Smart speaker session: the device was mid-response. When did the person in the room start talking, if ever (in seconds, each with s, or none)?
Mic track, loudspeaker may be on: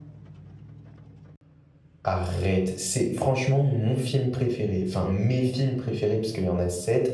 2.0 s